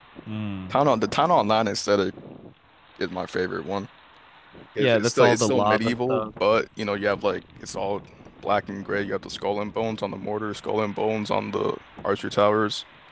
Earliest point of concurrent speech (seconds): 5 s

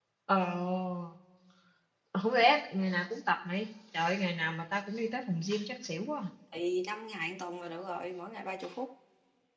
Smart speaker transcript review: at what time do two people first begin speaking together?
none

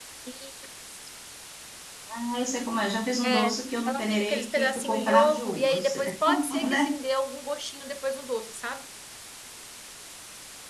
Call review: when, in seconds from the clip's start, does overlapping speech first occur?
3 s

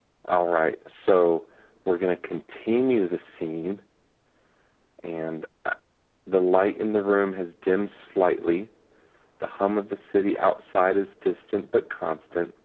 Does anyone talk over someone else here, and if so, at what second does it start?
none

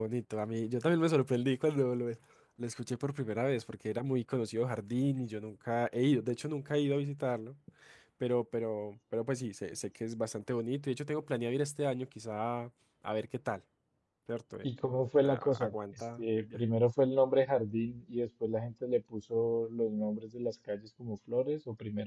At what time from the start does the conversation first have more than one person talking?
15 s

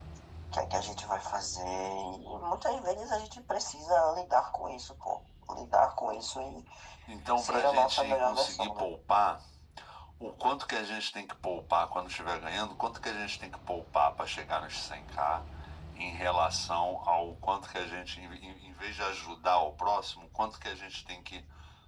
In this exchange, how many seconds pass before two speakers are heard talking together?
7 s

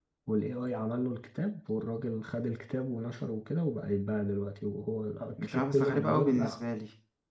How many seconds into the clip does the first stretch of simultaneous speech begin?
5 s

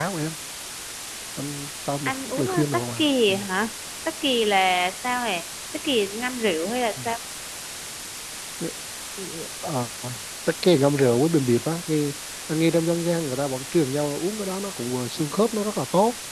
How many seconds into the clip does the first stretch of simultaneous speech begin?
2 s

